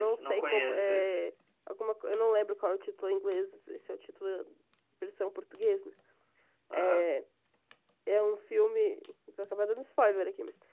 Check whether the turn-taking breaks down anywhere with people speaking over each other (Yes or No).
Yes